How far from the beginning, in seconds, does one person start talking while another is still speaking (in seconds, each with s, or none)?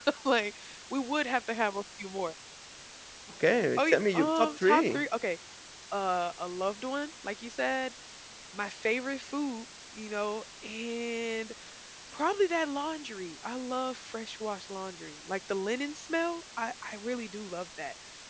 3.8 s